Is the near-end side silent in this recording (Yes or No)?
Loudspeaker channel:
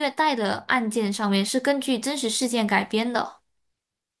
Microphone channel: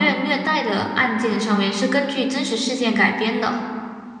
Yes